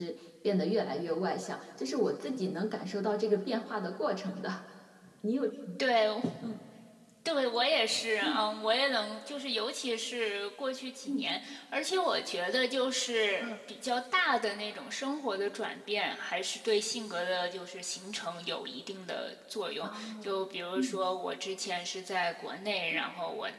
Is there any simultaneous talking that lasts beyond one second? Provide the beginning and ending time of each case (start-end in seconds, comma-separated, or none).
none